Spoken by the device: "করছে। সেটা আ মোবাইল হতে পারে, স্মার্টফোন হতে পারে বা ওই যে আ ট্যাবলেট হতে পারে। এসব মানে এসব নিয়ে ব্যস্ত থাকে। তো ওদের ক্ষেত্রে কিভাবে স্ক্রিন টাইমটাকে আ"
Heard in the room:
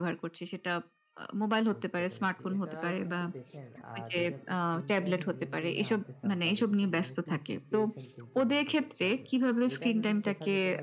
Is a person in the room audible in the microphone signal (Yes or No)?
Yes